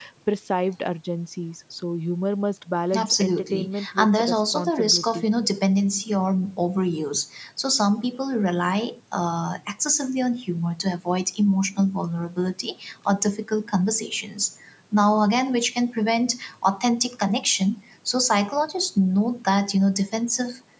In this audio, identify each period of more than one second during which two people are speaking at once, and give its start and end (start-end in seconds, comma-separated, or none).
3.0-5.2